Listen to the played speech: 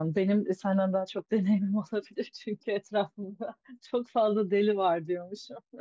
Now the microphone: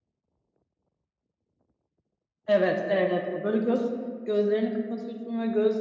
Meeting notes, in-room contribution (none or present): present